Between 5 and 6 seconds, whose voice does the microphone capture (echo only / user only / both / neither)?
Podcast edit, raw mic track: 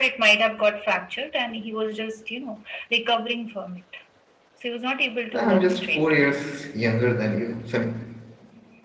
both